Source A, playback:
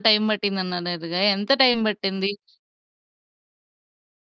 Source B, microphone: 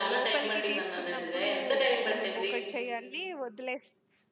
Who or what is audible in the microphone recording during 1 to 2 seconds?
both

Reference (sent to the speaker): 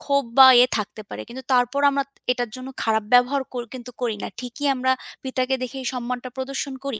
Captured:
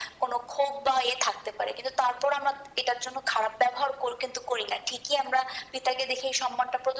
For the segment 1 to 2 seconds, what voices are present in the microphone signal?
echo only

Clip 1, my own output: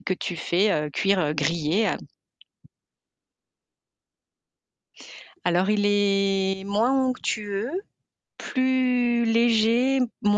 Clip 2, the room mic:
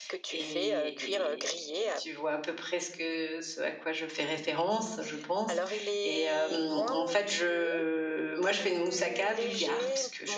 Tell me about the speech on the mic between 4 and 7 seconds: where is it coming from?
both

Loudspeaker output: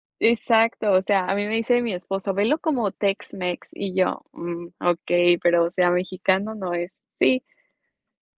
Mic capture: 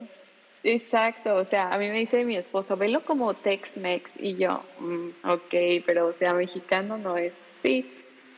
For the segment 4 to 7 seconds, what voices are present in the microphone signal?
echo only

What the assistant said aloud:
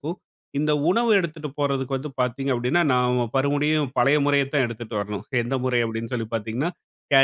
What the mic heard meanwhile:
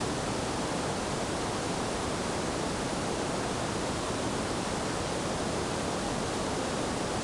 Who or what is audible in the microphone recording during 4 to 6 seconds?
neither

